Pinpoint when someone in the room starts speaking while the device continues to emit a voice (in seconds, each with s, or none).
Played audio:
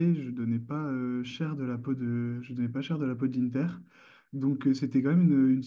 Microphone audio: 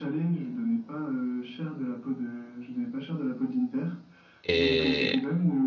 4.4 s